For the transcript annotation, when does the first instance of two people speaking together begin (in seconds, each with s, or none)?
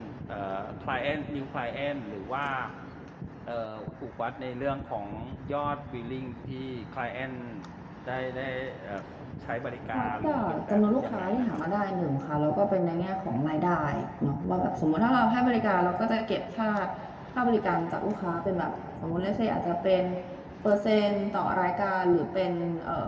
10.0 s